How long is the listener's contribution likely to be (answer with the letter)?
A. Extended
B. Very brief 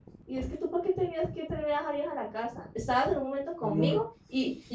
B